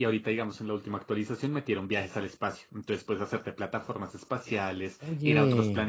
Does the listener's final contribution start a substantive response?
No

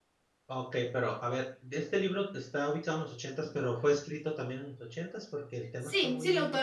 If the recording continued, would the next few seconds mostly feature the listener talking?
Yes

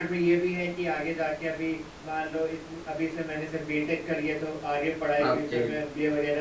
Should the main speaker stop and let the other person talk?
No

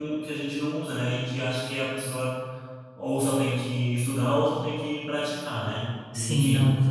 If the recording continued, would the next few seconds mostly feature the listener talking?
Yes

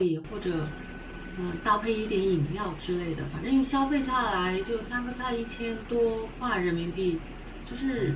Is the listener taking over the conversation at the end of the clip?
Yes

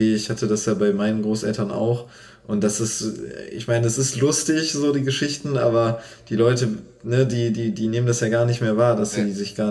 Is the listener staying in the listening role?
Yes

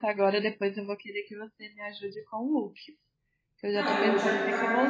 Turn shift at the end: Yes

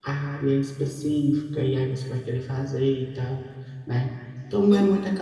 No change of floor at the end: Yes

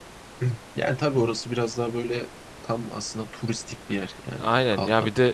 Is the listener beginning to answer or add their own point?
Yes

